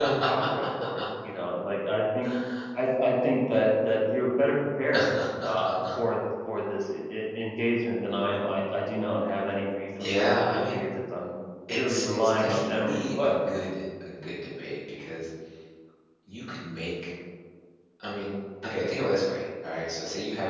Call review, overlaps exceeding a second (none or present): present